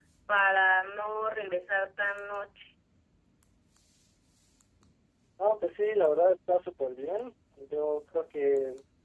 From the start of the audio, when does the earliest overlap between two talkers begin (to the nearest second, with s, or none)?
none